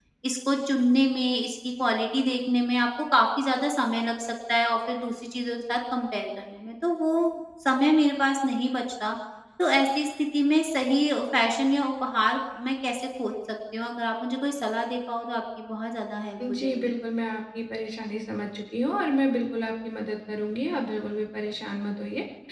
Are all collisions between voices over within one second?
Yes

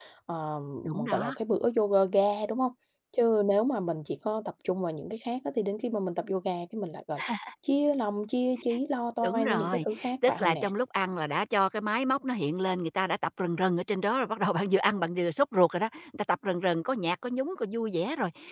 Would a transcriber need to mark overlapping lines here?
Yes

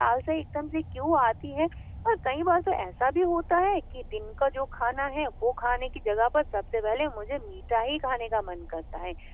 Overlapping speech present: No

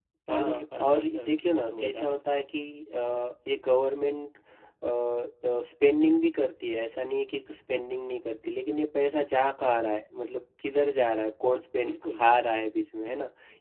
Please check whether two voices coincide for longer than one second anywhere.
Yes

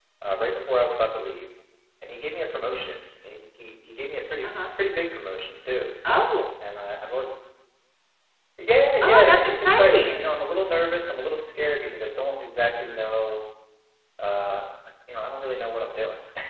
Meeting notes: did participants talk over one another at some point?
Yes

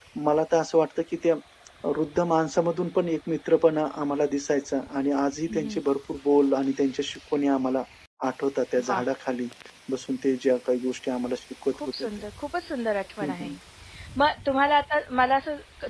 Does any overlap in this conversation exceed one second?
No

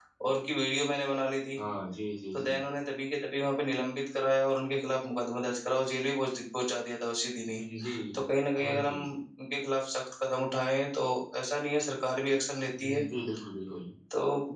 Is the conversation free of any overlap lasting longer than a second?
Yes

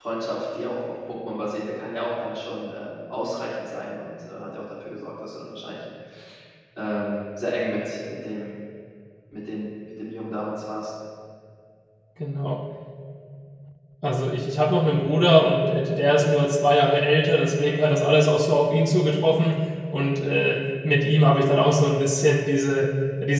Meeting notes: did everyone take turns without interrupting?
Yes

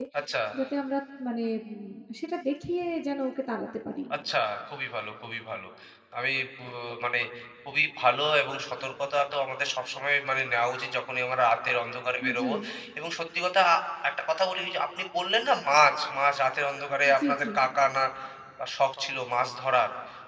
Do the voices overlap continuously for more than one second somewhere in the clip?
No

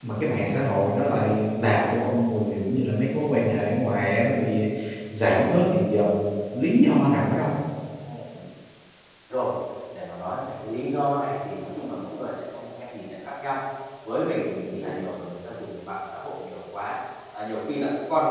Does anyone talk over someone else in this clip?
No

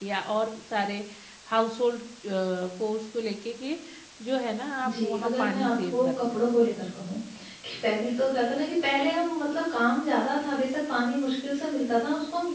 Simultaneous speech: Yes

